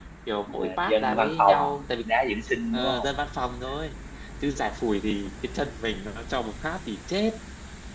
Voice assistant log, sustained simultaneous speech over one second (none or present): present